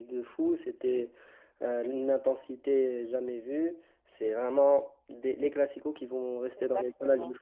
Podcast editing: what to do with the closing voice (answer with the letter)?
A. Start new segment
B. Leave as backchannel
A